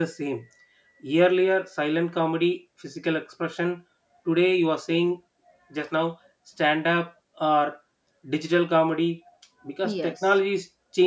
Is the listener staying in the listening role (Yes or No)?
Yes